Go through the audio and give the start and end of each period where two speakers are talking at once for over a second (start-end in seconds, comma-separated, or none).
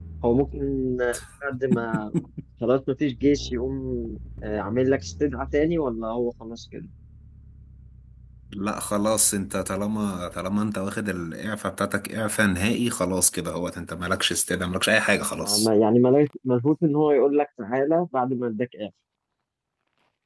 none